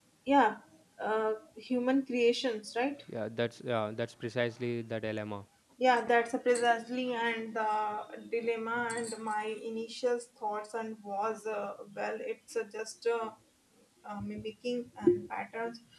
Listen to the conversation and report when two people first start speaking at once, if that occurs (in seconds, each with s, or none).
none